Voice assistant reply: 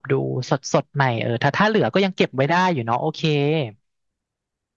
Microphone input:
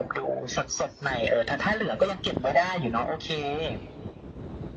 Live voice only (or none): none